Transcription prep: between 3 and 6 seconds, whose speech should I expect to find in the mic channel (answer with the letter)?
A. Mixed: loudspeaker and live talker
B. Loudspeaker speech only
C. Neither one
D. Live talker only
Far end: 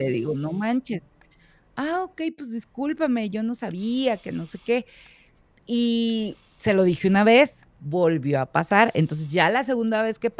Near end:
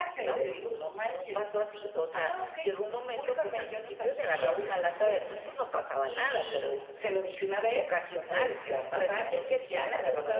A